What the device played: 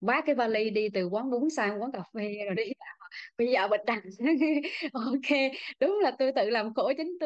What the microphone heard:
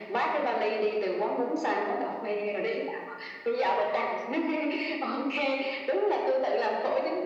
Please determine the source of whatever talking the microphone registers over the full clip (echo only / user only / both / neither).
echo only